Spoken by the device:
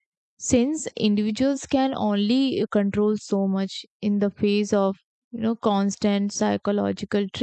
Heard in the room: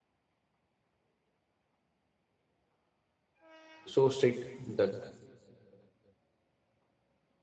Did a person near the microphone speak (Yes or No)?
Yes